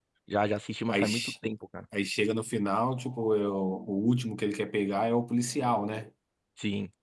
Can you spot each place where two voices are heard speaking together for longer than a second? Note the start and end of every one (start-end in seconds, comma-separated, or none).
none